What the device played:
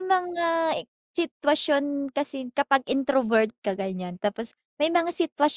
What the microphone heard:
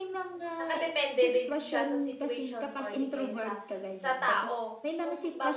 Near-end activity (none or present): present